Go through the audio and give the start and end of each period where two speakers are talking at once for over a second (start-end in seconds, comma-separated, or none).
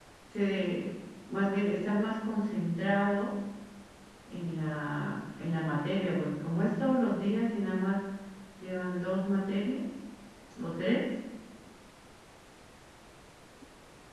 none